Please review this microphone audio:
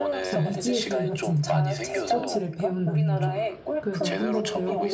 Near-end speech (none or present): present